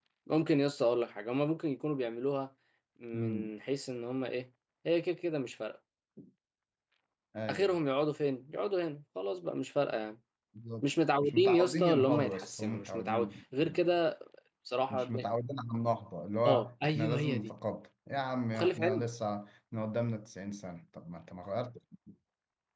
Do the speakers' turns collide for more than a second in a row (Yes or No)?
Yes